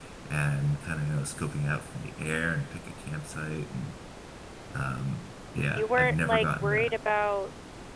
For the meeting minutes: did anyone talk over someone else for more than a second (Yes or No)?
Yes